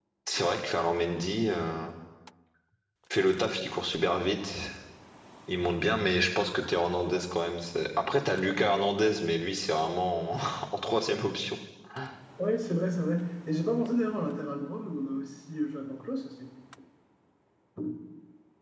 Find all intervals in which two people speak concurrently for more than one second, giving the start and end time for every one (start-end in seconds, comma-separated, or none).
none